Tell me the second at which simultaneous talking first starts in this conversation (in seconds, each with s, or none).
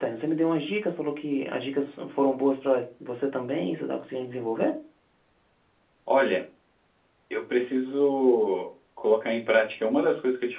none